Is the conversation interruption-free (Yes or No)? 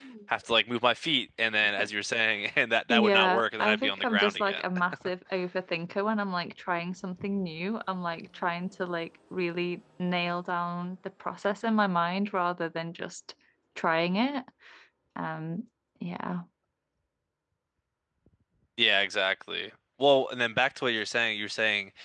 No